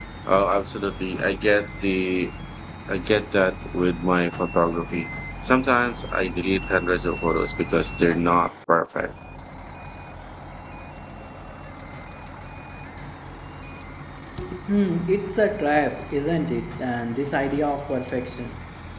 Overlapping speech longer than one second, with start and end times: none

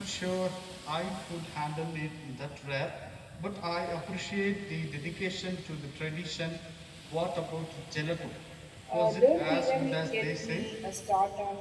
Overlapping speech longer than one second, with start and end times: 8.9-10.7

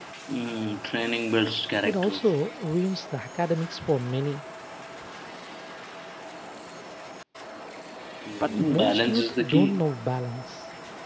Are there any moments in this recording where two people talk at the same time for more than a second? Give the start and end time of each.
8.4-9.8

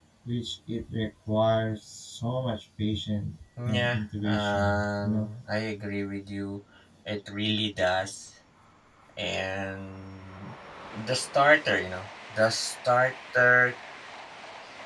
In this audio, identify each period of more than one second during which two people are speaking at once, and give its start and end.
3.6-5.3

